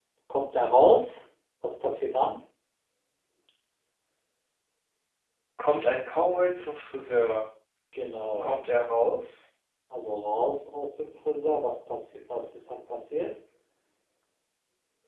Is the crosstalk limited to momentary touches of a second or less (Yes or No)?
Yes